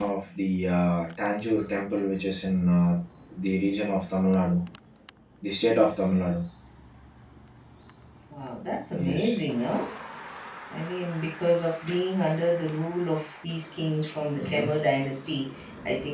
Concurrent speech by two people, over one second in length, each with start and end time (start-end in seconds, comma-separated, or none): none